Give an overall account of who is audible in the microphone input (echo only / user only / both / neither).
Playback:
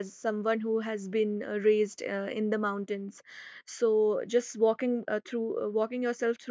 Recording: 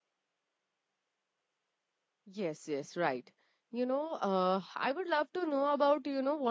user only